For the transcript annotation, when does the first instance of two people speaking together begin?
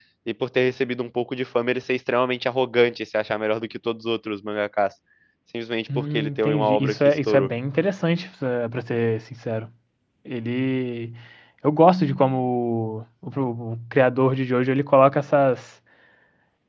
6.0 s

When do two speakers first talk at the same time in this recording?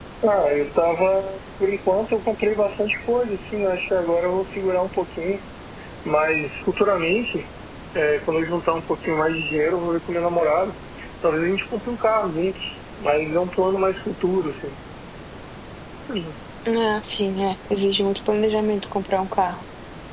none

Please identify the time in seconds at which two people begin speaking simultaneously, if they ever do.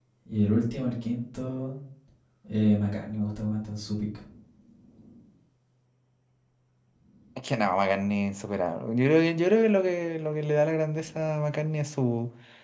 none

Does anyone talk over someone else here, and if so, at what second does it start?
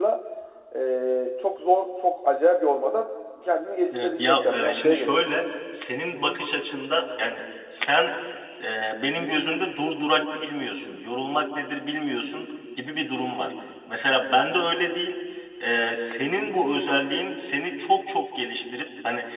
3.9 s

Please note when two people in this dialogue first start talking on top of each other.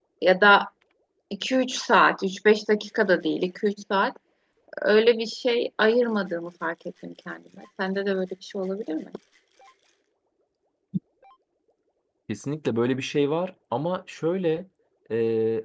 none

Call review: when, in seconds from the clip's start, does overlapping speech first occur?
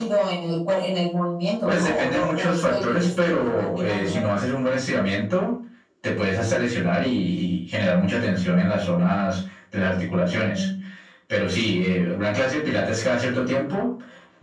1.7 s

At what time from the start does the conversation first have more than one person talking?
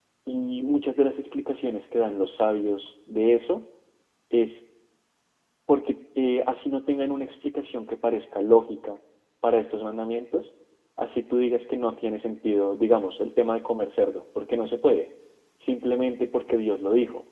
none

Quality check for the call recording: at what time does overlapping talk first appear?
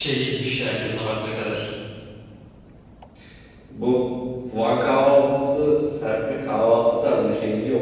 none

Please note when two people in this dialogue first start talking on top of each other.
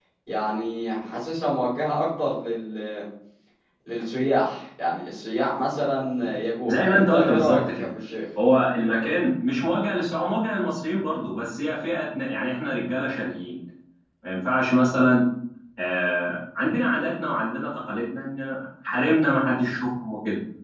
6.7 s

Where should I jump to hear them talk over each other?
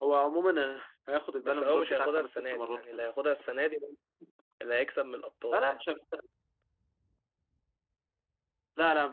1.4 s

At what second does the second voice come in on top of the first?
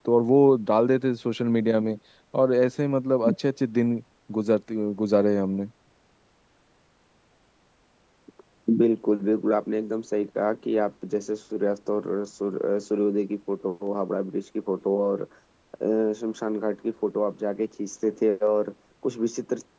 none

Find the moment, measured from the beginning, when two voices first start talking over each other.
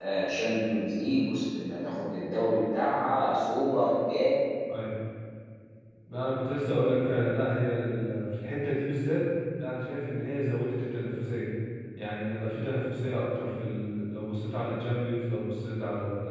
none

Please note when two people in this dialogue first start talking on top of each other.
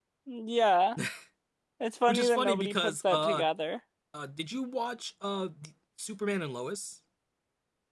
2.1 s

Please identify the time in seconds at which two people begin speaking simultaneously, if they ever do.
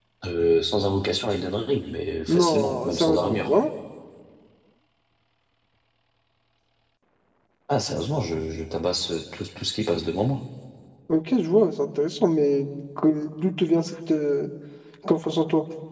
2.3 s

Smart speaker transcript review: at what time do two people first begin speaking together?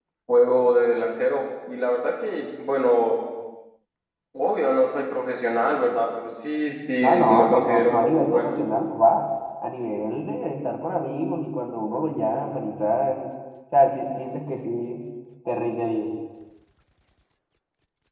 7.3 s

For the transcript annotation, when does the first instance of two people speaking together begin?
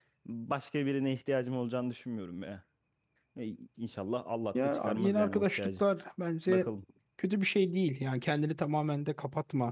4.5 s

